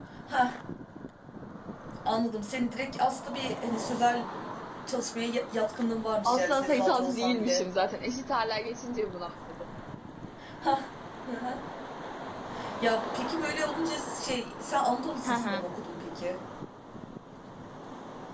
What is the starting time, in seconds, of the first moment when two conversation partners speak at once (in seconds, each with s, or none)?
6.2 s